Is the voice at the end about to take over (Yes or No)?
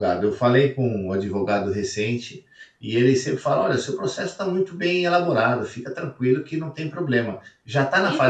Yes